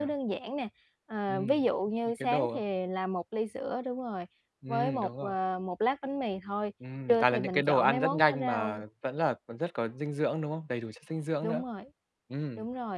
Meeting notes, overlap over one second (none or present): present